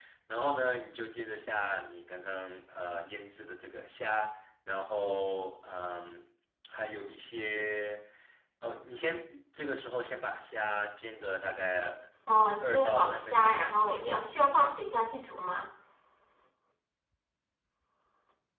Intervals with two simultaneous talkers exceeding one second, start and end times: 12.6-14.0

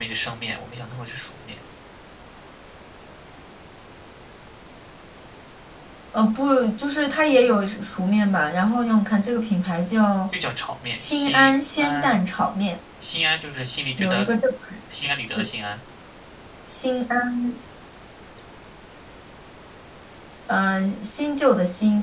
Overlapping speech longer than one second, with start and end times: 10.9-12.1

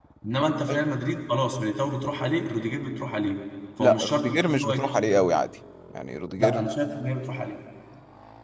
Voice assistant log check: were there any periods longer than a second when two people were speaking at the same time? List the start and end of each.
3.8-5.3

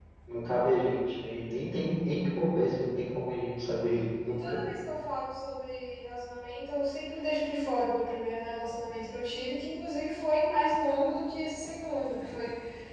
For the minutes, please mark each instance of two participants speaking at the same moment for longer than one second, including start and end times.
none

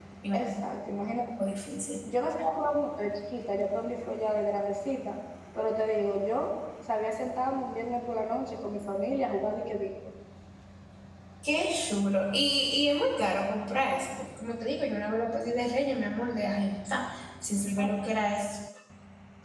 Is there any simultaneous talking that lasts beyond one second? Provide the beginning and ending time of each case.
none

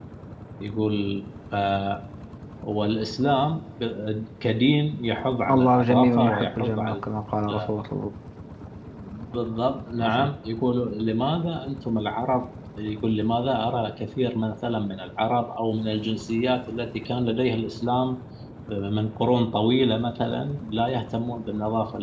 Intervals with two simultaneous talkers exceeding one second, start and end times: 5.5-7.0

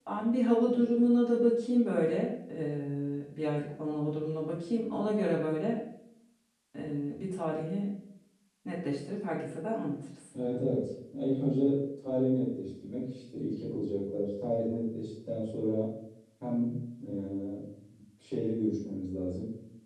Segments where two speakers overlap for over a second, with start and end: none

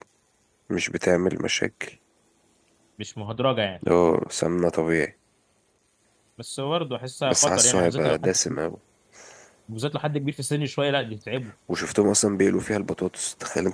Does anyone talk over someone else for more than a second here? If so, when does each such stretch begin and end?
7.3-8.6

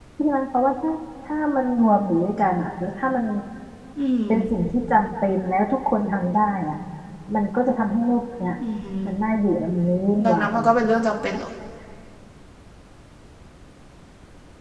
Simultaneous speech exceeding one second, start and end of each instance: none

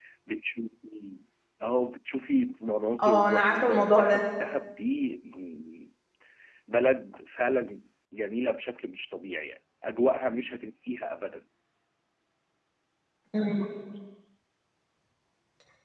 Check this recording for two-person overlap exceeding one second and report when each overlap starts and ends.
3.0-4.3

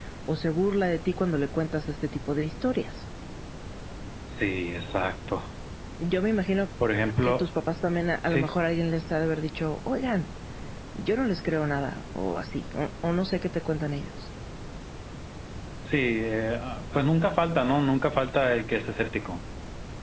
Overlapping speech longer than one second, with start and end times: none

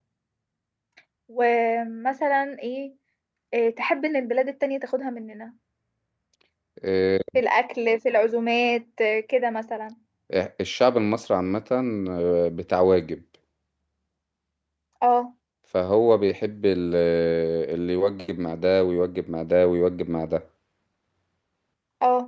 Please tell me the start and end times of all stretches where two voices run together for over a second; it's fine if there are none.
none

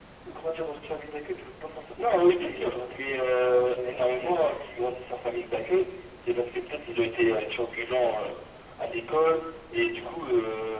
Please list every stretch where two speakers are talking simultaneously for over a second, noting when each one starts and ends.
2.0-4.3

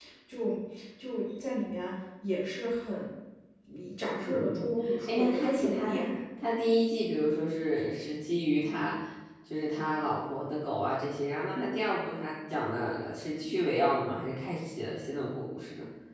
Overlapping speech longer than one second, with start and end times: 4.2-6.1

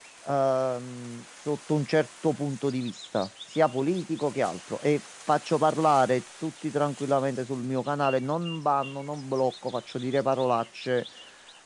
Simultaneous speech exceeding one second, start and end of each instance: none

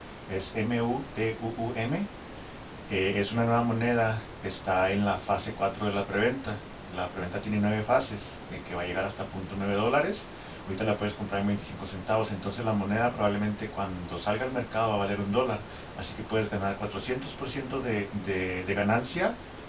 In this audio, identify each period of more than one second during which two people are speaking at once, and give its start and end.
none

